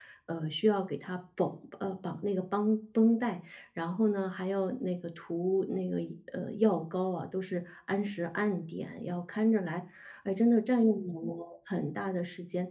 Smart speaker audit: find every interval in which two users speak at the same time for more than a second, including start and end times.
none

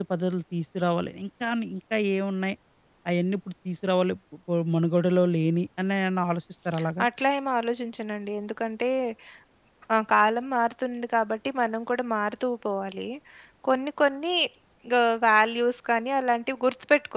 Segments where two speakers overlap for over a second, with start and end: none

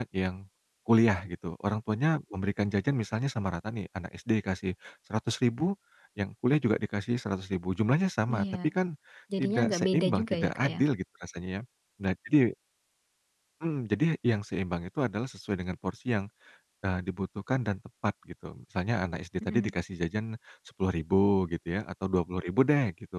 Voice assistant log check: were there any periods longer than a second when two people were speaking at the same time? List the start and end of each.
9.4-10.8

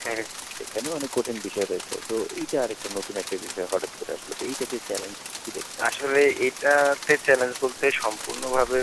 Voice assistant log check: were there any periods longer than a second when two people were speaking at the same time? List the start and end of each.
none

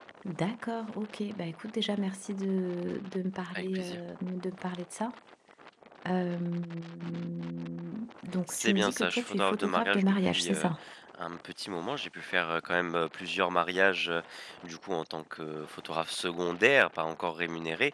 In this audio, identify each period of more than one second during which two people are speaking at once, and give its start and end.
8.5-10.7

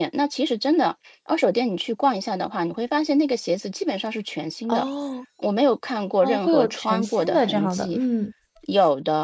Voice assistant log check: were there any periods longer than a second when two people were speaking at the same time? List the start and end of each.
6.2-8.0

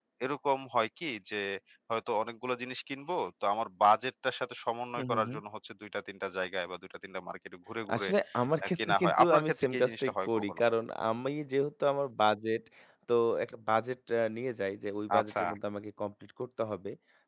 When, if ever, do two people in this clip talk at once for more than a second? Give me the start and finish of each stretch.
8.6-10.6

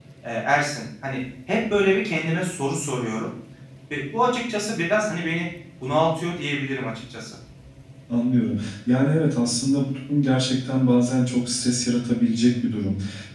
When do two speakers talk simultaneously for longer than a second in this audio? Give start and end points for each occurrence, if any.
none

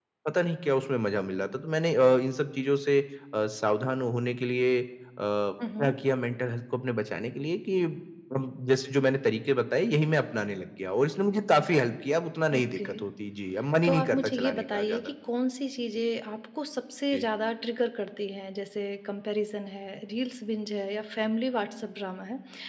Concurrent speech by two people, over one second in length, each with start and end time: 13.8-15.1

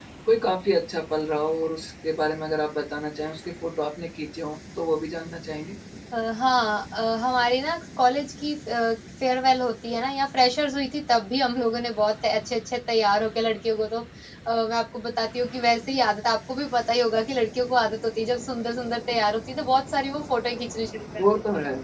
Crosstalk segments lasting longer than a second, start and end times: none

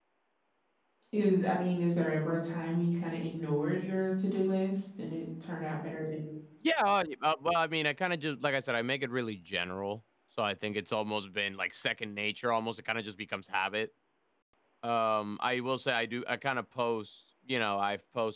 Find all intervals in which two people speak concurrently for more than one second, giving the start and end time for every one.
none

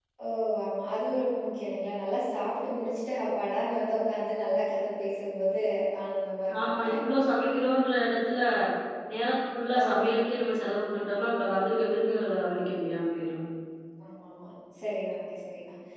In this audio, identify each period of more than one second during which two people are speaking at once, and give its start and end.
none

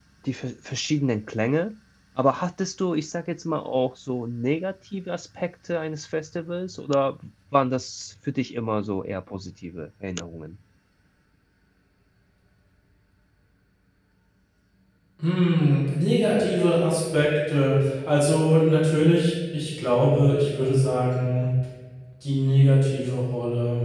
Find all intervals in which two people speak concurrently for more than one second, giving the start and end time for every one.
none

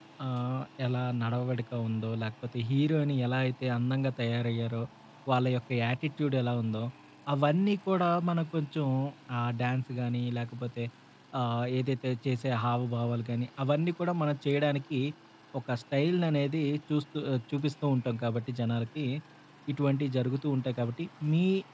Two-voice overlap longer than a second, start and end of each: none

